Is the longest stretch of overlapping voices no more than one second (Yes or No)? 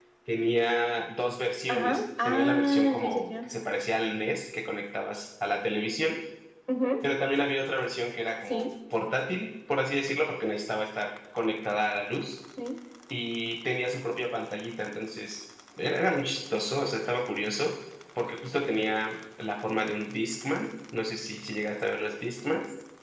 No